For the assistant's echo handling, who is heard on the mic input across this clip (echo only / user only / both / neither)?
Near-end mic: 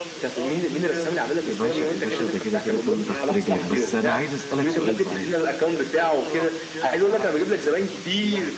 both